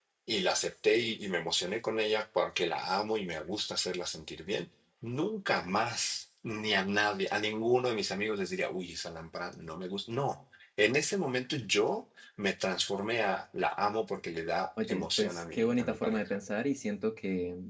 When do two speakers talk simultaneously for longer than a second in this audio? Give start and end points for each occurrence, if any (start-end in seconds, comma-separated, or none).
14.8-16.4